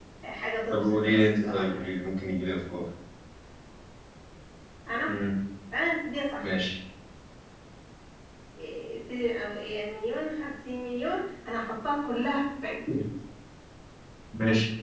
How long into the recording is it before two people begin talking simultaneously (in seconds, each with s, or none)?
0.7 s